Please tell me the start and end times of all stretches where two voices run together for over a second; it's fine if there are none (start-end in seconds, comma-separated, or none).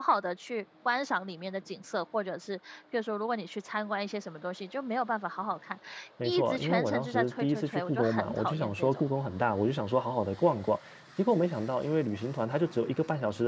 6.2-9.0